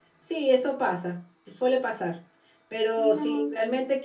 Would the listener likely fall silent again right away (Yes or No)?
Yes